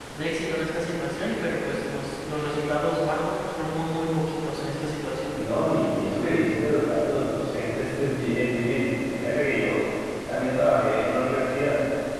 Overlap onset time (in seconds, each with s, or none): none